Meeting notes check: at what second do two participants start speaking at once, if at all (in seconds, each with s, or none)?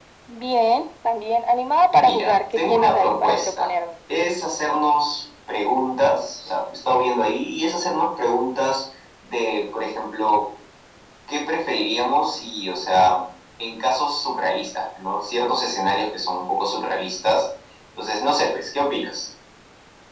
1.9 s